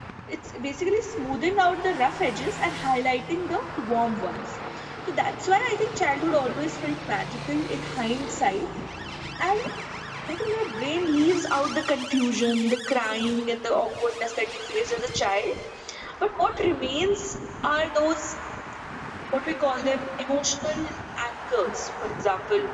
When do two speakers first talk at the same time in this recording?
none

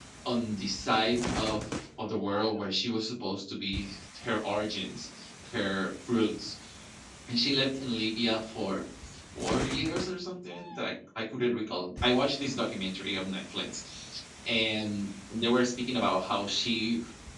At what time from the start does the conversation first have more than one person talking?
none

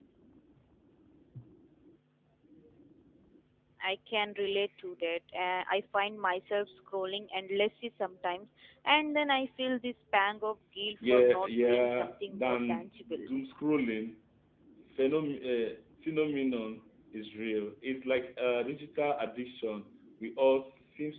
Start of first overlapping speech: 11.0 s

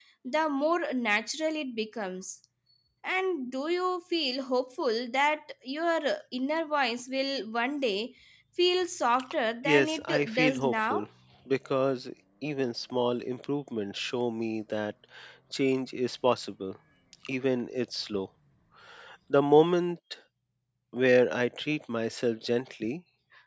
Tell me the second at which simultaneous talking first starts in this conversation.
9.6 s

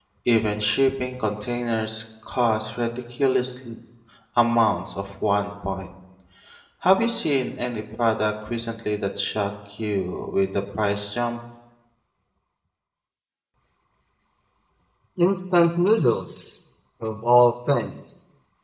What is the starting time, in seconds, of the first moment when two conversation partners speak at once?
none

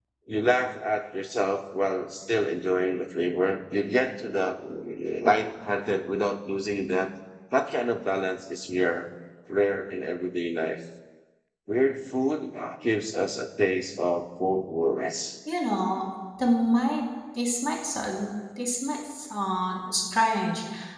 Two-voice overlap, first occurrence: none

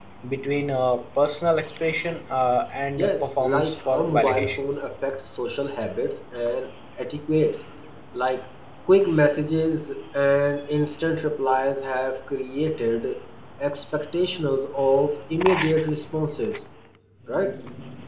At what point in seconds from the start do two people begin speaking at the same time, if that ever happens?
3.0 s

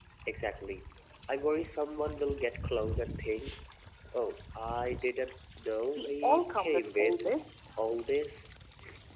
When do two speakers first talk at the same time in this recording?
6.0 s

